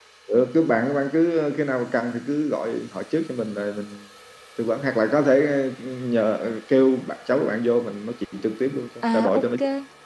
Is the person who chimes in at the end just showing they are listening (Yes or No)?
No